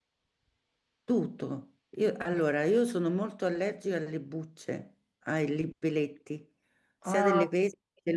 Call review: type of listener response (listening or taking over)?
listening